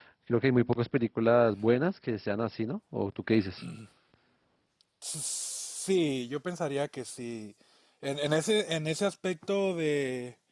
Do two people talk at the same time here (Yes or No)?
No